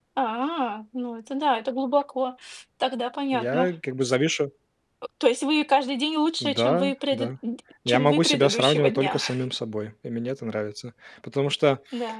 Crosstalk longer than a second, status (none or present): present